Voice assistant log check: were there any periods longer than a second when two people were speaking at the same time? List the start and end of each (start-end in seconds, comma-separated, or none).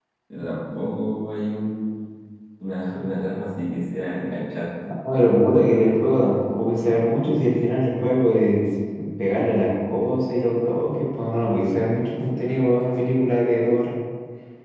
none